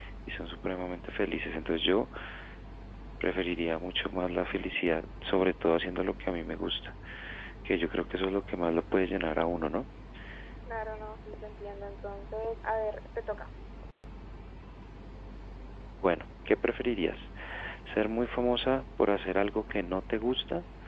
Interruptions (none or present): none